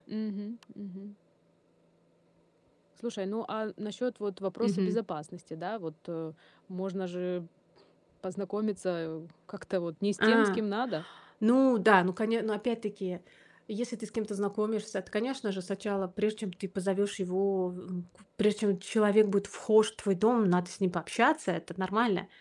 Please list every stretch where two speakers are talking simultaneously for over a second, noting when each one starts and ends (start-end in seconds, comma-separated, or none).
none